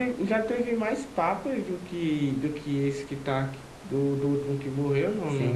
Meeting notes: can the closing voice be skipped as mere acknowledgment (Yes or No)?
No